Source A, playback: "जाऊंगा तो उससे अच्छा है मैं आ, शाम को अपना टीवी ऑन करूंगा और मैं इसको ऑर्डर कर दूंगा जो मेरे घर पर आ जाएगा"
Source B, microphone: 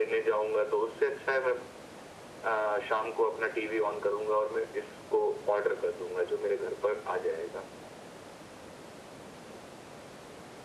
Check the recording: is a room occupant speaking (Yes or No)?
No